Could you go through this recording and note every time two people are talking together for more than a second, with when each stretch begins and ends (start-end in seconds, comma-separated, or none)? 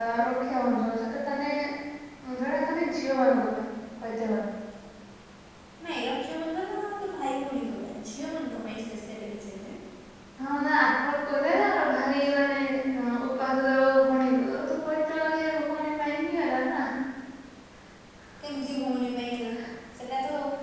none